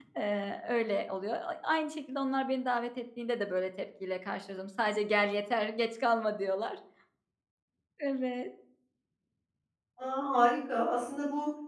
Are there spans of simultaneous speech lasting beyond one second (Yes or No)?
No